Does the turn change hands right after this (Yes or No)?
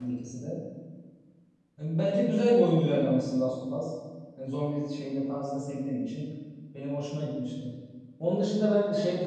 No